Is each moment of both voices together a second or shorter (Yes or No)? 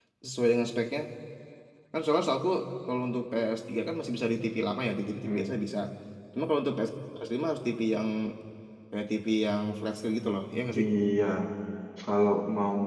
Yes